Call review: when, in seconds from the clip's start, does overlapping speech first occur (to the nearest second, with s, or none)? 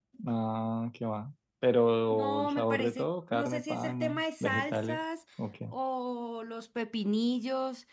2 s